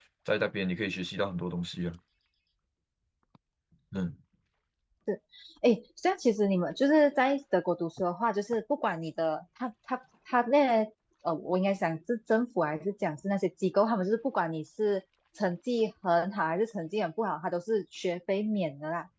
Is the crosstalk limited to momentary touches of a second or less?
Yes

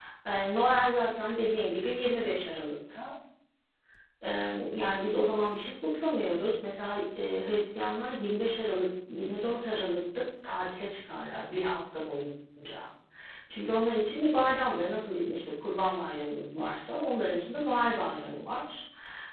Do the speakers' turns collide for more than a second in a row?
No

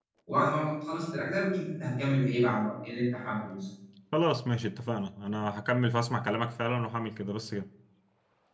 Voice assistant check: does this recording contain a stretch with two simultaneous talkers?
No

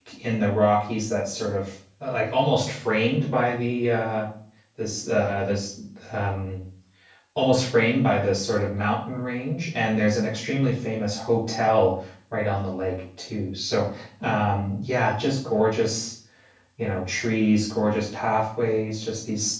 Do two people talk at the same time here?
No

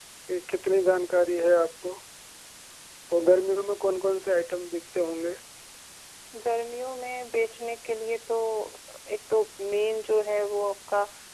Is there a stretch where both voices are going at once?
No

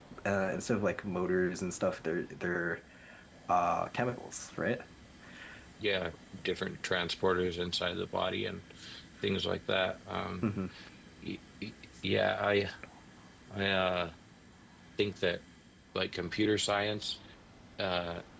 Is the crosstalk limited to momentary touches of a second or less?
Yes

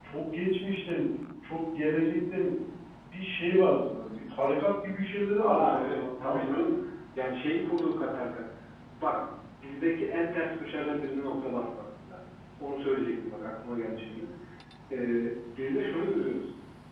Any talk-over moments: Yes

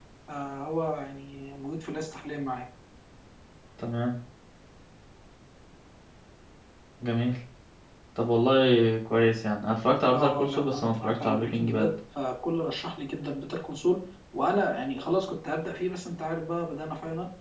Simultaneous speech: Yes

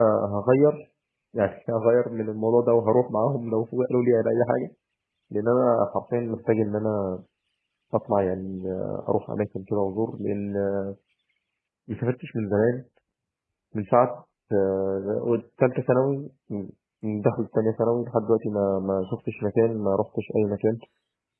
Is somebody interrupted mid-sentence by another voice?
No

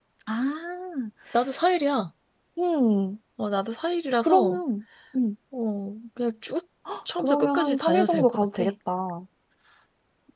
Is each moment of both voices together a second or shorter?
No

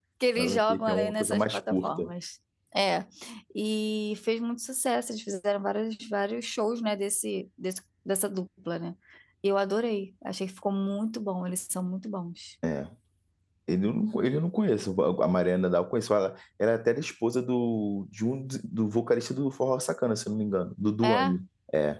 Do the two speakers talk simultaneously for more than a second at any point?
Yes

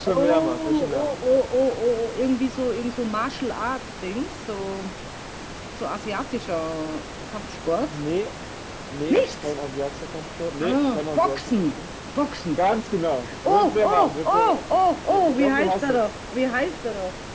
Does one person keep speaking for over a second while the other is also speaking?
Yes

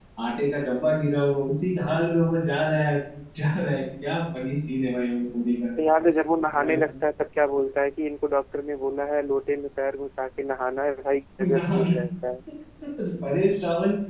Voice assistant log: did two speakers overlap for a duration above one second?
No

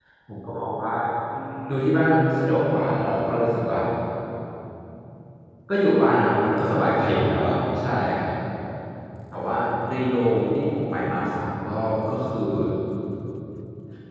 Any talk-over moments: Yes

